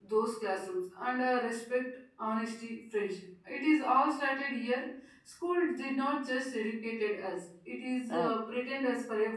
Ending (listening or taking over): listening